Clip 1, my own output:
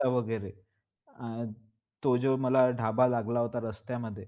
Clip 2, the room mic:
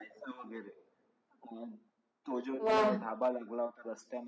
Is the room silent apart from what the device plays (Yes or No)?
No